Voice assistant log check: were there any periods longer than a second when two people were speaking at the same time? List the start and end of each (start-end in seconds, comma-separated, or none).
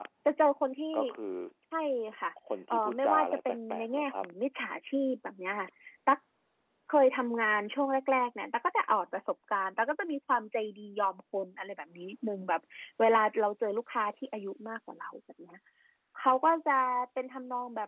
2.7-4.2